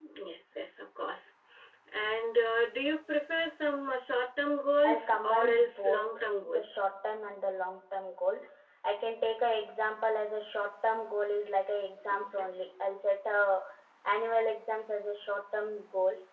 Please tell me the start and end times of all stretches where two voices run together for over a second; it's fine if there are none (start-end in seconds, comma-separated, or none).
4.8-6.6